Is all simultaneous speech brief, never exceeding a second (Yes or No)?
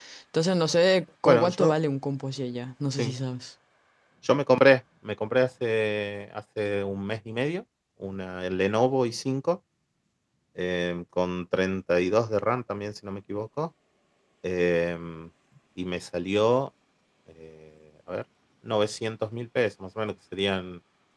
Yes